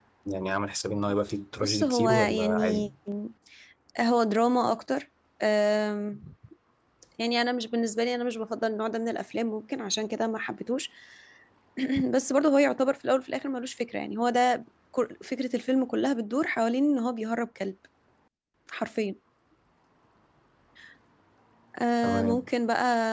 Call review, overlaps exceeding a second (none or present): present